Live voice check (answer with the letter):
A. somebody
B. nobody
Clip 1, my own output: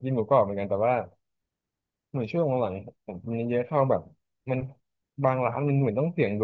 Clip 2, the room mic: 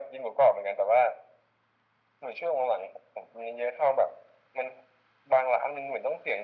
B